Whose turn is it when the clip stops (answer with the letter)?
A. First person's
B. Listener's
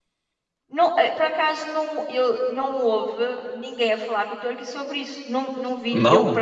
A